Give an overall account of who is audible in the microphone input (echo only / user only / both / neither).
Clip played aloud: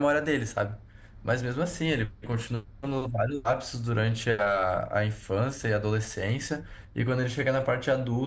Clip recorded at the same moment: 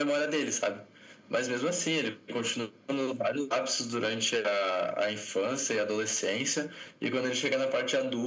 echo only